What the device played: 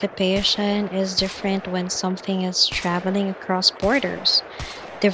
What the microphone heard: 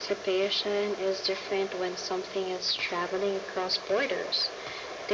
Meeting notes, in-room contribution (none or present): none